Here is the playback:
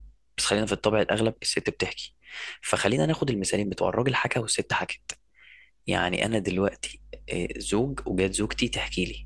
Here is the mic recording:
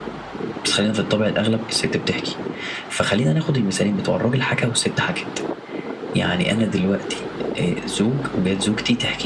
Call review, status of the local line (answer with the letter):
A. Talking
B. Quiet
B